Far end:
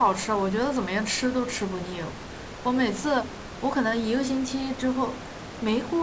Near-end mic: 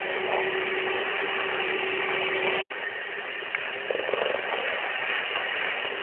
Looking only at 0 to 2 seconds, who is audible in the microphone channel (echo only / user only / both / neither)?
neither